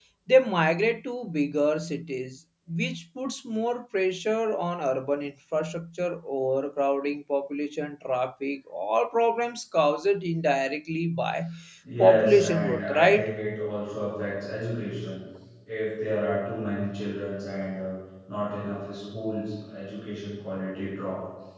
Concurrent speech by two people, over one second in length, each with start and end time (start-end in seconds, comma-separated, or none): 12.0-13.3